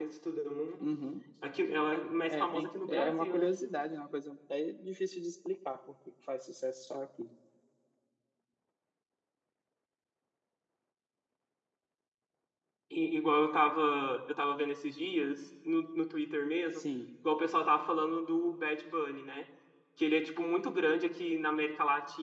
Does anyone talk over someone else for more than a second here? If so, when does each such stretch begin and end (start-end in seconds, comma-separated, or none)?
2.3-3.5